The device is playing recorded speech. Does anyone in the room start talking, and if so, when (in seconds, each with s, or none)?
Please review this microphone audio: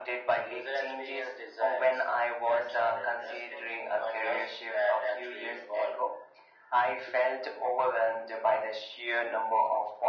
none